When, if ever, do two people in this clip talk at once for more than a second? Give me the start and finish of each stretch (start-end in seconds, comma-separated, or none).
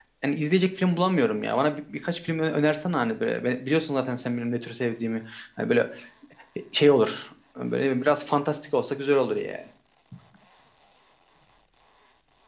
none